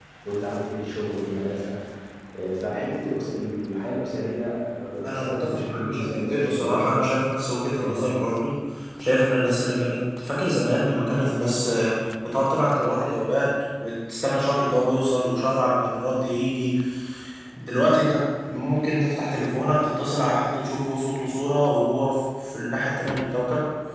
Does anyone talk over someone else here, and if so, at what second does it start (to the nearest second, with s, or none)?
5 s